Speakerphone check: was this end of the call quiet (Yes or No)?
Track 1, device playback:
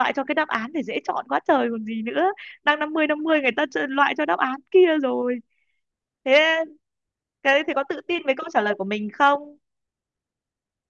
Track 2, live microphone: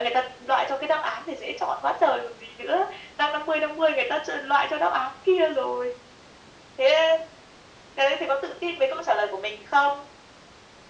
Yes